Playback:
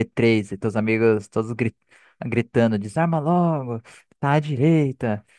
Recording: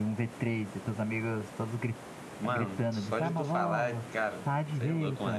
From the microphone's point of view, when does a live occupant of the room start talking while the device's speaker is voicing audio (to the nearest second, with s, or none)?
2 s